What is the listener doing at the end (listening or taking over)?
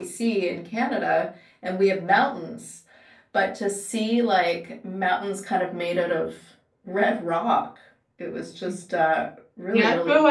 taking over